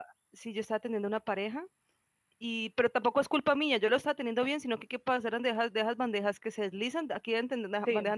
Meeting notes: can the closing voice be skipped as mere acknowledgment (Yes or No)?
Yes